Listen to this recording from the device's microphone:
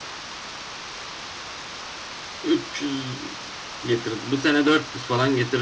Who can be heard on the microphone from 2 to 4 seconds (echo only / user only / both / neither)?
user only